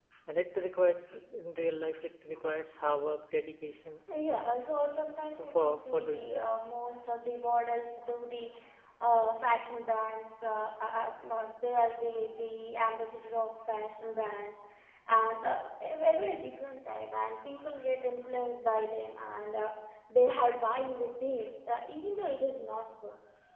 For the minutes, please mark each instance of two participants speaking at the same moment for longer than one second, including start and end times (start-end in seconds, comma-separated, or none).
5.3-6.7